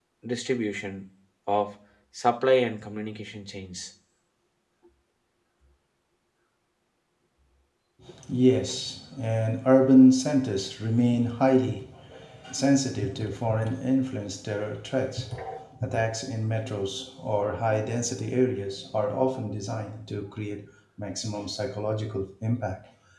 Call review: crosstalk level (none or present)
none